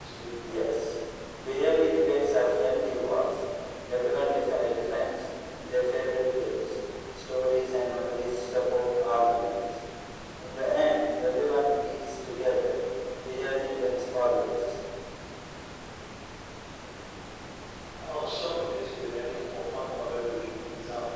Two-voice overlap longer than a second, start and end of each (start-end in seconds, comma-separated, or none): none